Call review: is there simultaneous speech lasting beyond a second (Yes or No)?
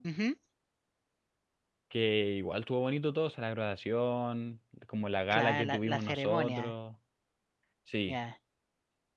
Yes